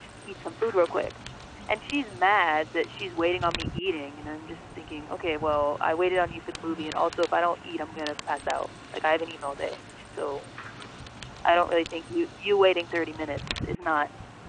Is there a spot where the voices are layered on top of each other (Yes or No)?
No